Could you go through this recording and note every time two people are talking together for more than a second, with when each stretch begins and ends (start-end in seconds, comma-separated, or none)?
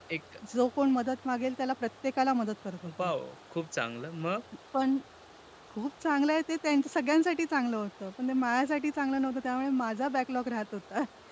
none